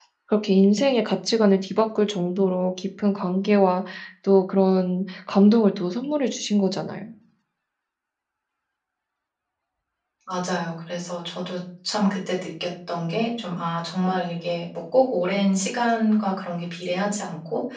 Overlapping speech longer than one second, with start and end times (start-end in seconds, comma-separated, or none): none